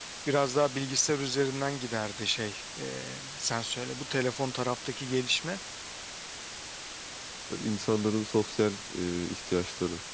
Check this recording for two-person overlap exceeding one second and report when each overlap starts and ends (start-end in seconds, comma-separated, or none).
none